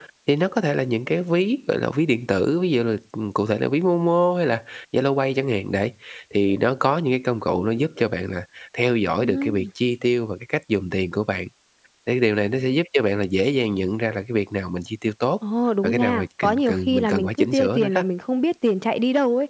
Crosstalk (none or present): present